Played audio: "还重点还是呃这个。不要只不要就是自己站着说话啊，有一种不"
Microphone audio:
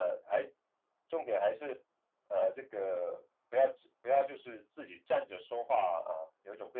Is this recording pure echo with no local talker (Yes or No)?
Yes